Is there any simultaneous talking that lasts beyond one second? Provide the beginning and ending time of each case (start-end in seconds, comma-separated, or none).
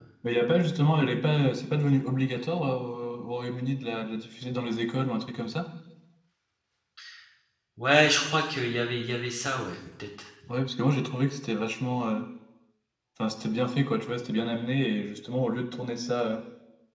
none